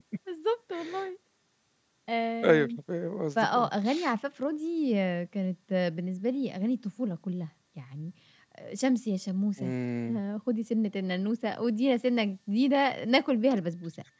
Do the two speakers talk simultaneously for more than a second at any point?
No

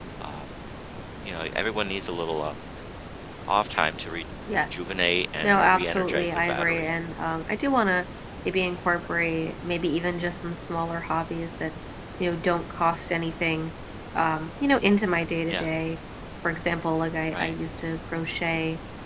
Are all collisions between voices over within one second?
No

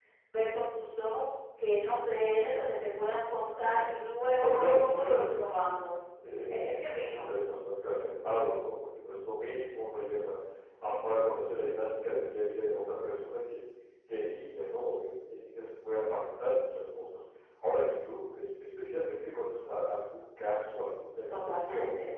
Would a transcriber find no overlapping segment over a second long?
No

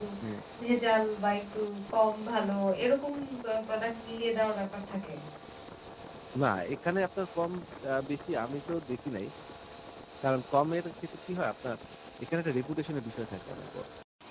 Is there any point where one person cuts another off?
No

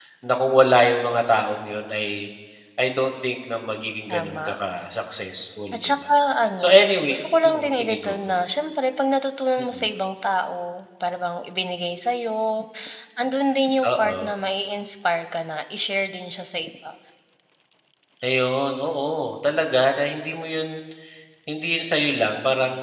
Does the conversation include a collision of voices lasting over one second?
Yes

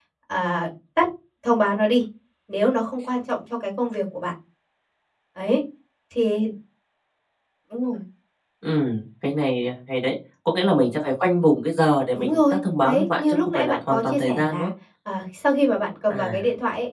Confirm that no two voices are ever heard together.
No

